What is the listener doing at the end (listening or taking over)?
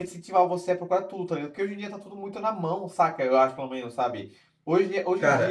listening